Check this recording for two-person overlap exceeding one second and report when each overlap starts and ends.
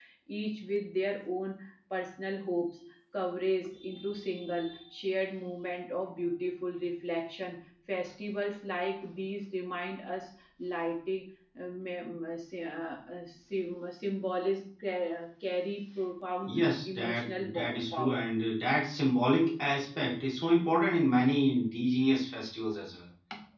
16.5-18.3

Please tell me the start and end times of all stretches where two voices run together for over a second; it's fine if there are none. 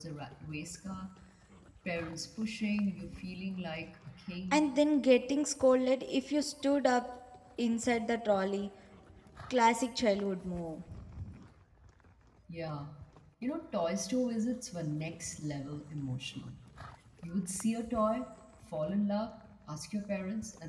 none

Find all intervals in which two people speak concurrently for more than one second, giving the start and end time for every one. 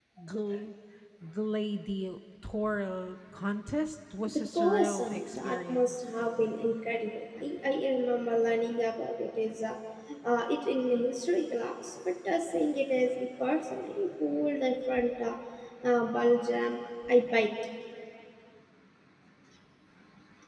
4.3-5.9

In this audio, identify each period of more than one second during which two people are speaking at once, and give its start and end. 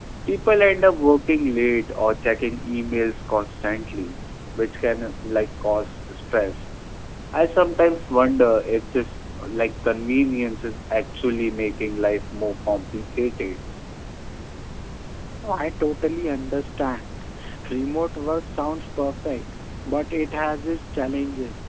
none

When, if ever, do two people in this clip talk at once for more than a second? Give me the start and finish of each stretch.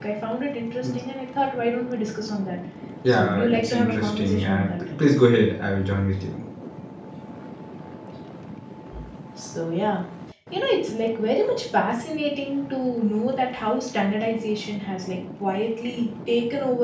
3.1-4.7

